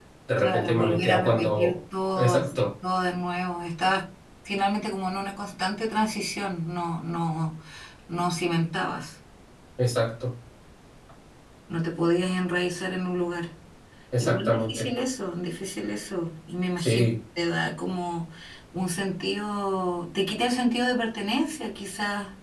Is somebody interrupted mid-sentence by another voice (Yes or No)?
Yes